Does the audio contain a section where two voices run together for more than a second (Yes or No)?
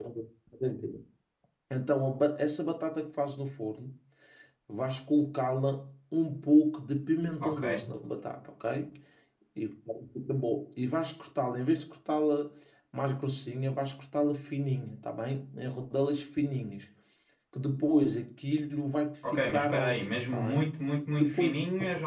Yes